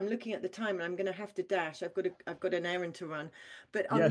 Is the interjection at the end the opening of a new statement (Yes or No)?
No